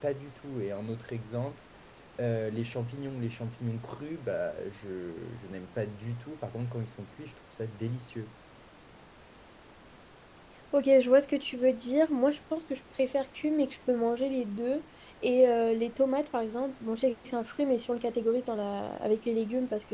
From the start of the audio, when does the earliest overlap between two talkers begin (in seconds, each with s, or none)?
none